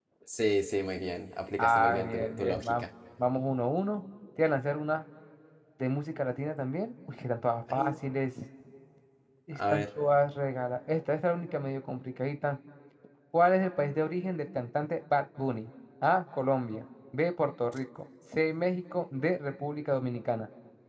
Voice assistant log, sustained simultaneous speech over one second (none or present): present